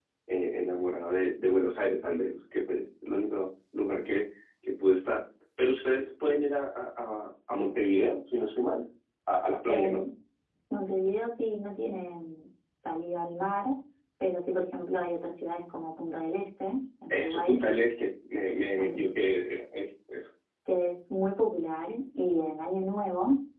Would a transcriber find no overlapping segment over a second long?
Yes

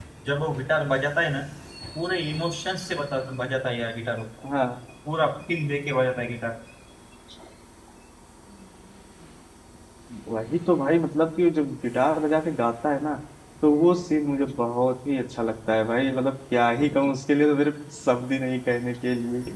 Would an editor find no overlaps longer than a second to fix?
Yes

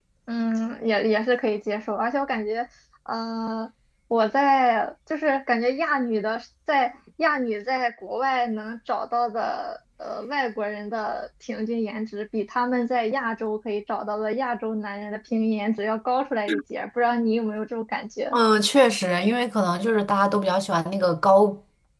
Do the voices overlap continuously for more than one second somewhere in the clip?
No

